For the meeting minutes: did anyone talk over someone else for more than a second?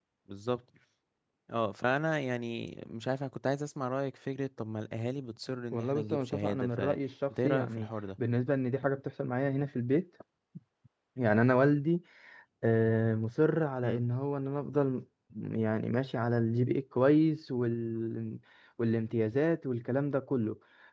Yes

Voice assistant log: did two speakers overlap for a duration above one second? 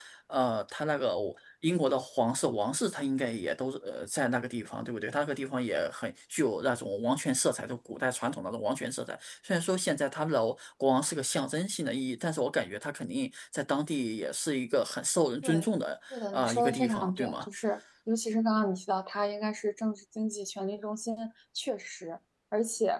Yes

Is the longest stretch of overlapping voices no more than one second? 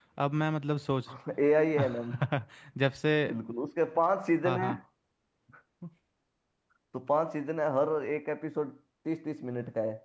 Yes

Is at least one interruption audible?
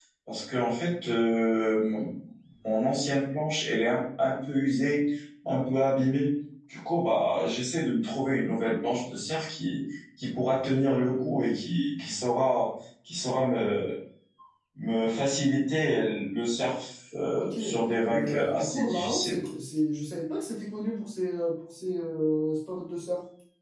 Yes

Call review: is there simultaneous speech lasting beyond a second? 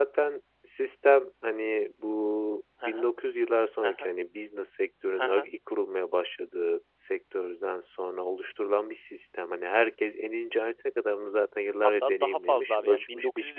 Yes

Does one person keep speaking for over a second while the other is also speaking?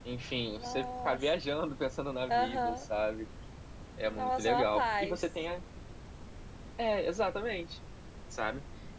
Yes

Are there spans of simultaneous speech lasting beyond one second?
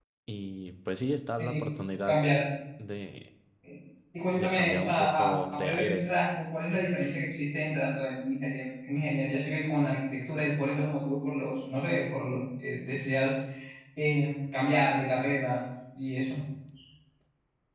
Yes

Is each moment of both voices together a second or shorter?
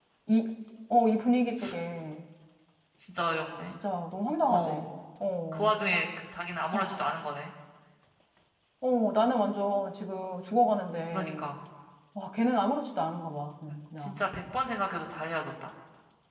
Yes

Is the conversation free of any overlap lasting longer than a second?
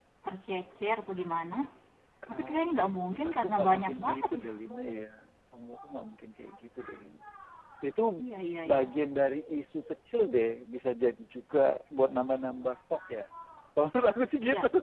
No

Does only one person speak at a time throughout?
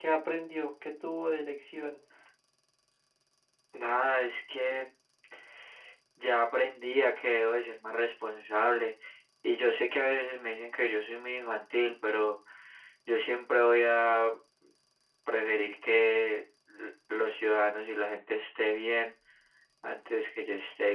Yes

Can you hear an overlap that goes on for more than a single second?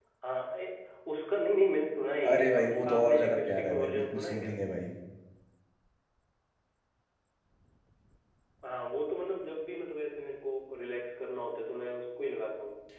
Yes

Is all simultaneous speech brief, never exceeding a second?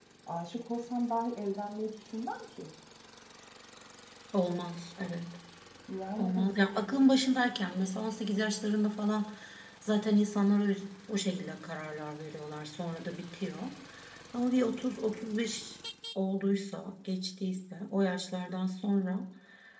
Yes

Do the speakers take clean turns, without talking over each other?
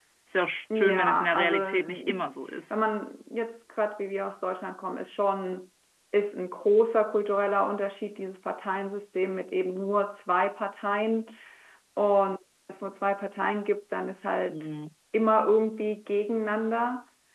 No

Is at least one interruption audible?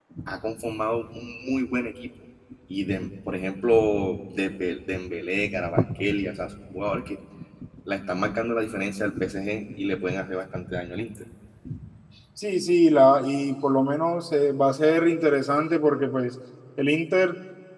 No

